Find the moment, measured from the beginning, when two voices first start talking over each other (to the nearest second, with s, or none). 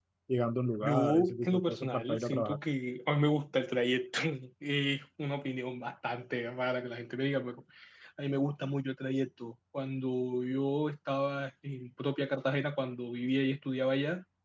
1 s